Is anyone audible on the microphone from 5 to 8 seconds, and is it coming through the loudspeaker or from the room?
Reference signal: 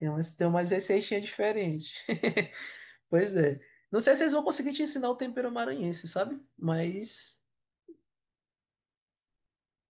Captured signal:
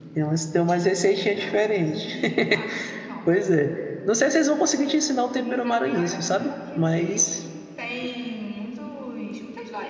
both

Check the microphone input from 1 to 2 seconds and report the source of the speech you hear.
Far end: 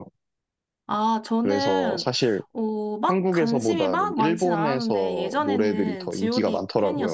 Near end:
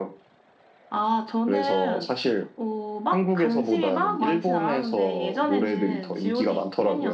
echo only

